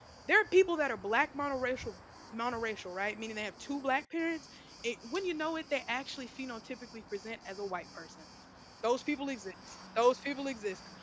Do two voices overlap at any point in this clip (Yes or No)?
No